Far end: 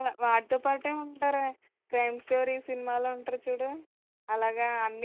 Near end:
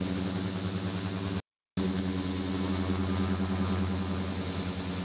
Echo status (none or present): none